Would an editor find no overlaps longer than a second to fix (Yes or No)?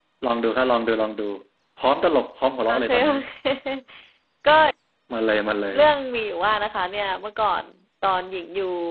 Yes